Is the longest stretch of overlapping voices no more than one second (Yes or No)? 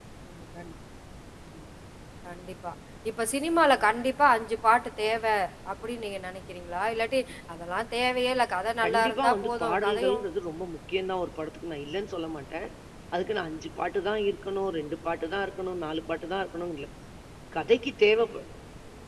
No